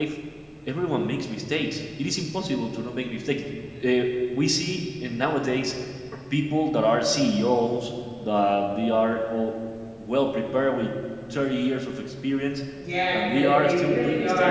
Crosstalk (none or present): present